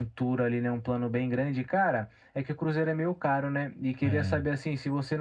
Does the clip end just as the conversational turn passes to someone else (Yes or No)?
No